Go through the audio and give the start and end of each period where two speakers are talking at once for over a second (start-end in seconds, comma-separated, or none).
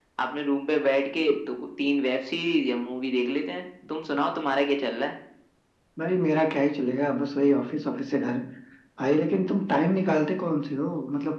none